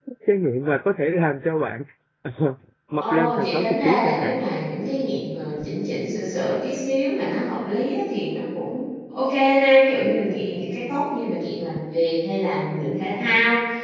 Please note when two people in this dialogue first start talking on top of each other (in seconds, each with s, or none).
3.0 s